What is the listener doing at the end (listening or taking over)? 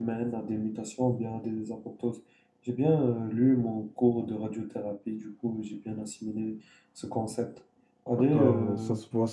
taking over